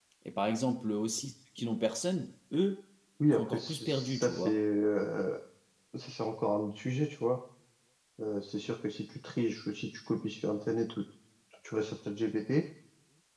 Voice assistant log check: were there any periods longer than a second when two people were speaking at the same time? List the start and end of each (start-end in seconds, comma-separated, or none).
3.3-4.6